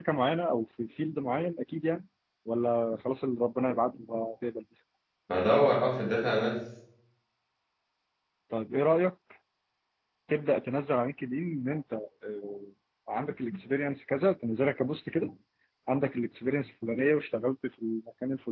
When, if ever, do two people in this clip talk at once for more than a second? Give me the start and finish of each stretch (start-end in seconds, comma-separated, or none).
none